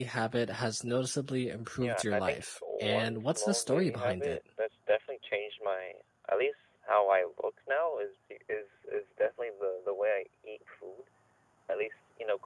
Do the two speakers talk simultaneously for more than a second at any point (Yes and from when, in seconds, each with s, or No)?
Yes, from 1.8 s